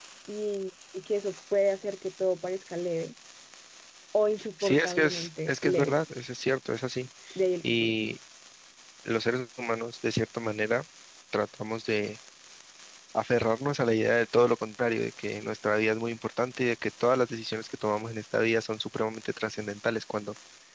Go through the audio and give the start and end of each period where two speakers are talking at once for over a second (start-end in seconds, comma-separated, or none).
4.6-6.0